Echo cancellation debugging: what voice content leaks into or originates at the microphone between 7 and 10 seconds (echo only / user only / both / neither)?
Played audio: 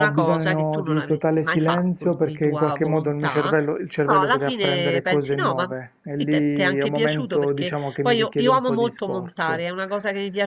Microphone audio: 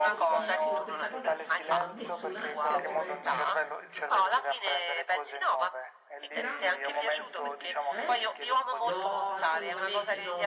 both